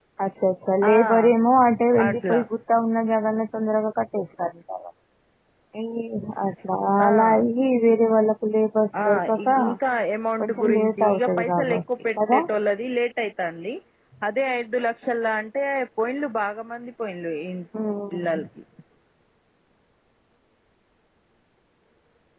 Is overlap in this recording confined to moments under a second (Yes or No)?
No